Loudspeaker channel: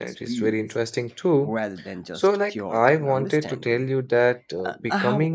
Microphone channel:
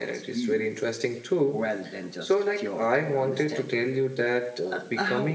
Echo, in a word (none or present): present